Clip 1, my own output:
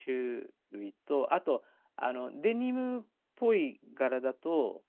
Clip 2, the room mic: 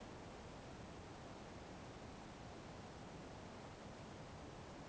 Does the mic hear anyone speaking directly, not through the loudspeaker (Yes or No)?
No